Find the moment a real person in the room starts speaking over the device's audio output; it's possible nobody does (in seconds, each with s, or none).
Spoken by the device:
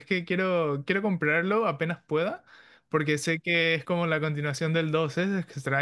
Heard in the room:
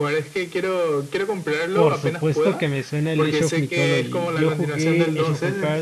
1.7 s